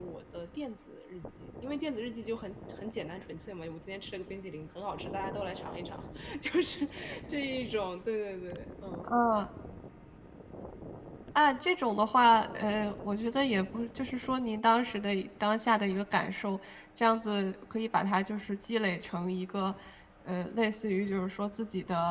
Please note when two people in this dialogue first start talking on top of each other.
none

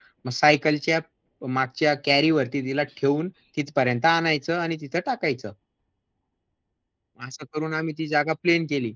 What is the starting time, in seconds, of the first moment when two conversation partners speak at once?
none

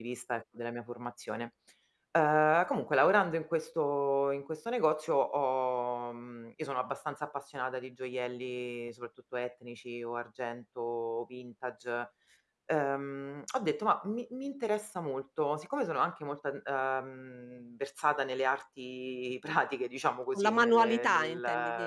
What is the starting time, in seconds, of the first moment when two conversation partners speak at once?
20.3 s

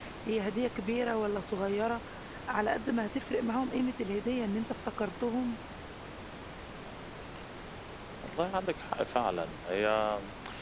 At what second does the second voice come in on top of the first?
none

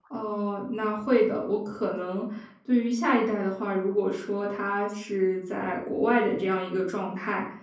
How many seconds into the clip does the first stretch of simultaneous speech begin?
none

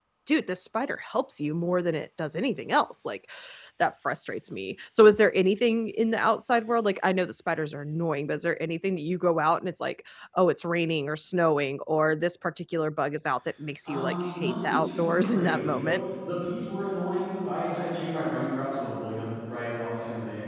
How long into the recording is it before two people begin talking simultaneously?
13.8 s

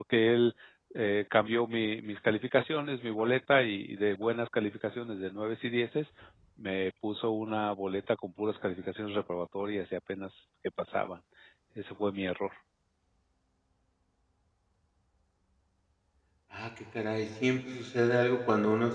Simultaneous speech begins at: none

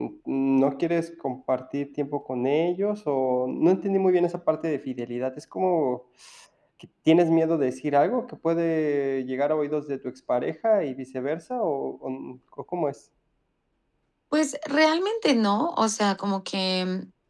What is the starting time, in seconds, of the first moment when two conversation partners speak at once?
none

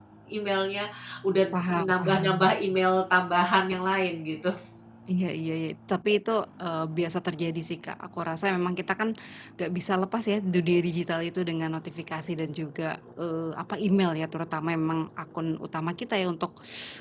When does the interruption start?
1.5 s

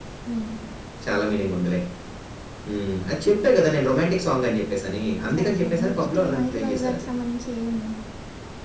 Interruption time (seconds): 5.3 s

